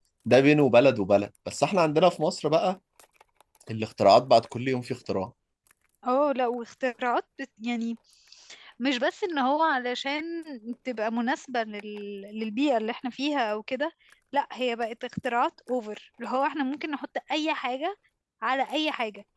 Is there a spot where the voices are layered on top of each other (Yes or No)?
No